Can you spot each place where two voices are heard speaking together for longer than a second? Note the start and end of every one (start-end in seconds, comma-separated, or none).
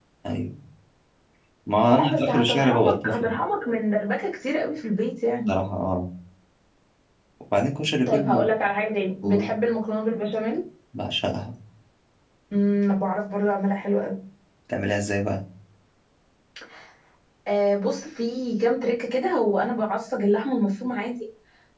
1.8-3.4